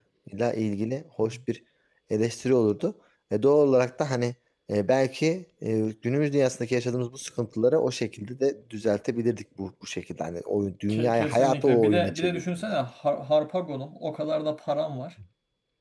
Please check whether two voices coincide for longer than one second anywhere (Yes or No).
Yes